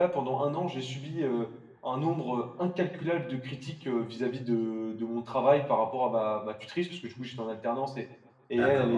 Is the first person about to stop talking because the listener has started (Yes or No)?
No